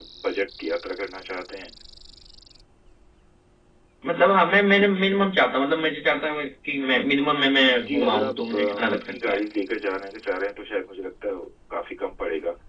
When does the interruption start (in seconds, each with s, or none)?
7.7 s